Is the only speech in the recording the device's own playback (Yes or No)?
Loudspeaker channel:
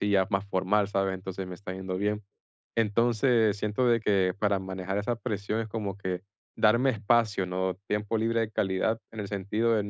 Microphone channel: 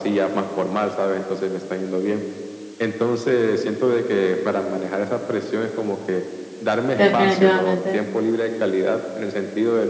No